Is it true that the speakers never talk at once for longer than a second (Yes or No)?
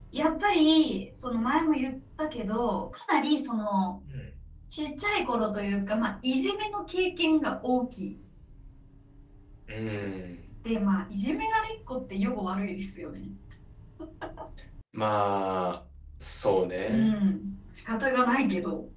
Yes